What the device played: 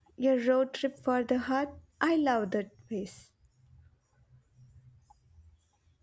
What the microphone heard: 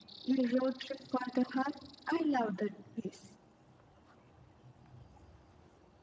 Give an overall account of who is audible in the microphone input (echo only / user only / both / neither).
echo only